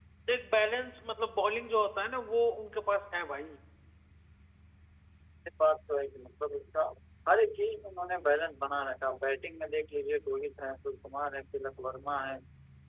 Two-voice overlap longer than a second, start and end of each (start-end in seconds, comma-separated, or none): none